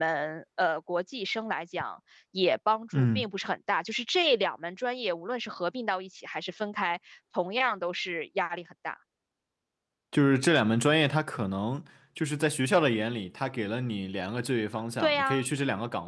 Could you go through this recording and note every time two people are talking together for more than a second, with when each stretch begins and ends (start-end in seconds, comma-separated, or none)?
none